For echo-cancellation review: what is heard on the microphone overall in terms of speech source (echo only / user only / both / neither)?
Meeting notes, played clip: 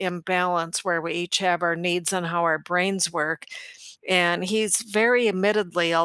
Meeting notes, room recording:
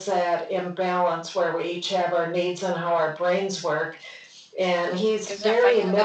both